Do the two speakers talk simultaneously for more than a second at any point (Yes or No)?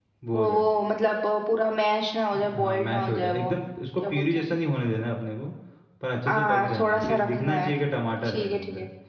Yes